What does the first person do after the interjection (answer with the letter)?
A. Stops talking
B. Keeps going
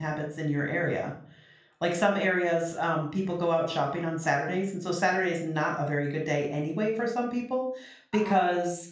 B